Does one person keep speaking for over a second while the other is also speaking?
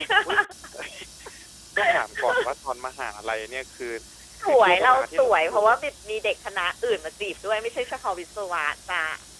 Yes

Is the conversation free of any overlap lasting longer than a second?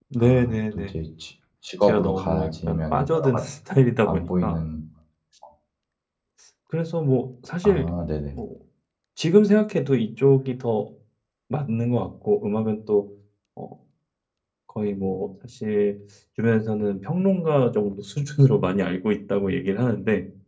No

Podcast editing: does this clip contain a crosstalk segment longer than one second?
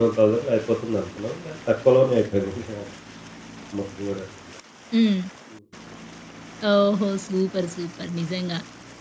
No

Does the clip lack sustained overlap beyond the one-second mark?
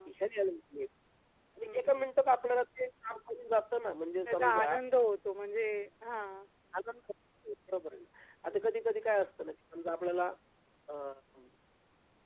Yes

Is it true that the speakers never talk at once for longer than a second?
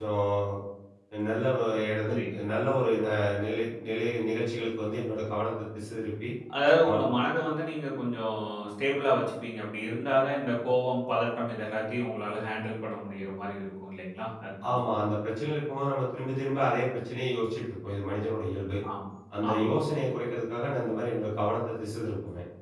Yes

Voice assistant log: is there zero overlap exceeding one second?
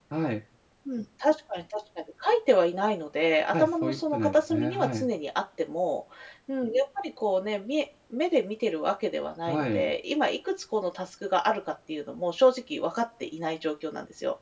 No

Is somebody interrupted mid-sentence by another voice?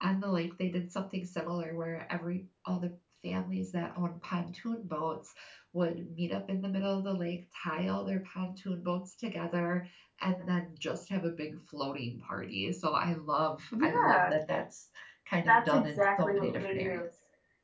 Yes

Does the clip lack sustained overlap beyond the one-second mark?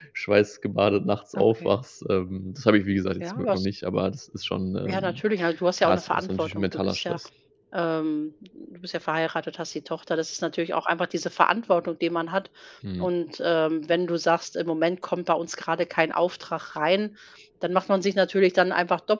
No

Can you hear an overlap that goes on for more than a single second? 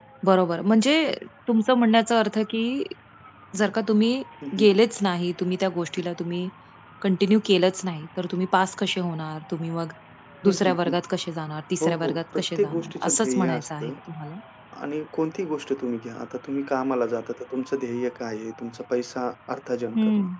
Yes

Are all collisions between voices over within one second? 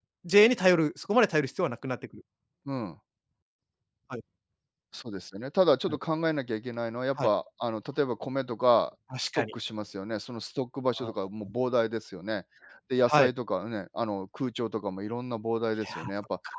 Yes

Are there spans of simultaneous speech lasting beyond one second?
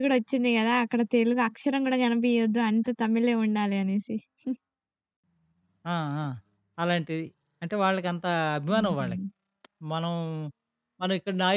No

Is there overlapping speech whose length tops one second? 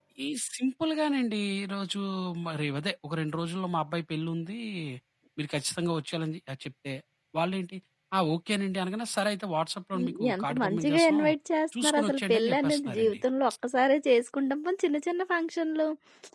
Yes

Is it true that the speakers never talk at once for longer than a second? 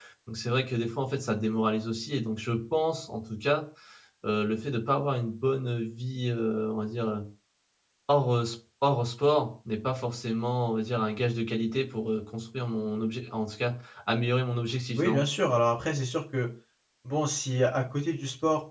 Yes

